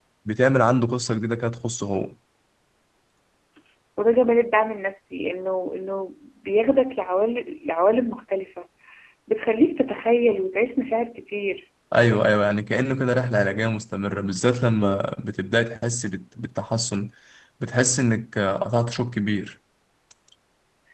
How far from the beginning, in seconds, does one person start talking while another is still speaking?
none

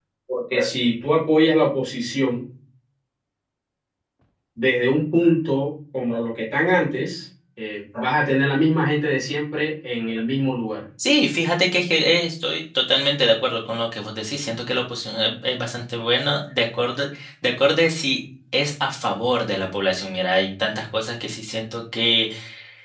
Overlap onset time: none

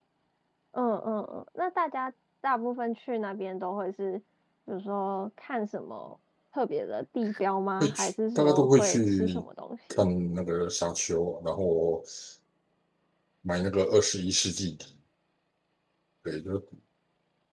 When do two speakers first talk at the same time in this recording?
7.8 s

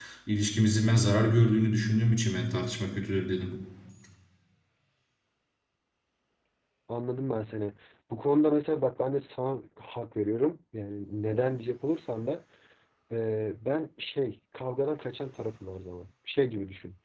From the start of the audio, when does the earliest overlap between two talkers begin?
none

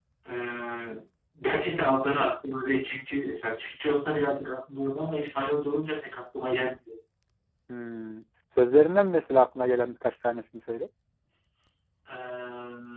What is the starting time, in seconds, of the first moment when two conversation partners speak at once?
none

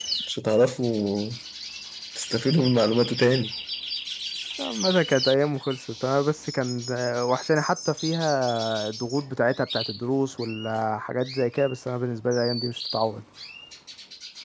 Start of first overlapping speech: none

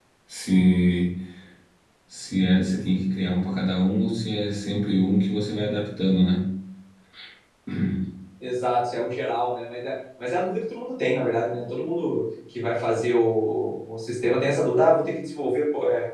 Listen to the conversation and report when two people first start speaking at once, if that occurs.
none

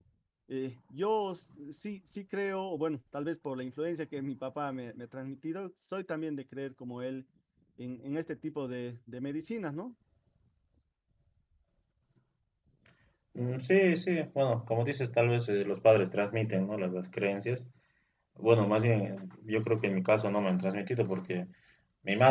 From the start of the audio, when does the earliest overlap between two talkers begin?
none

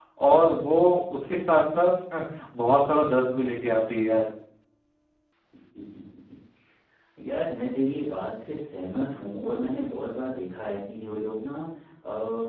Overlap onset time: none

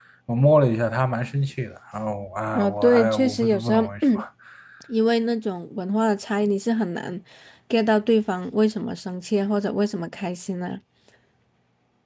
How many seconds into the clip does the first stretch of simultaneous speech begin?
2.5 s

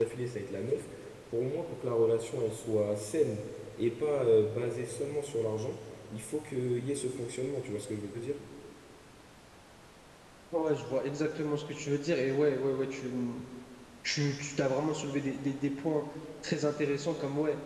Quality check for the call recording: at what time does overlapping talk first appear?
none

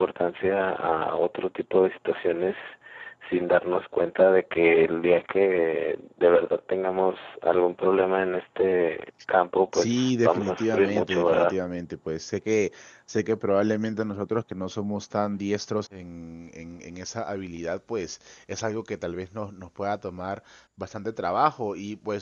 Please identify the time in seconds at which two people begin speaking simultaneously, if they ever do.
9.7 s

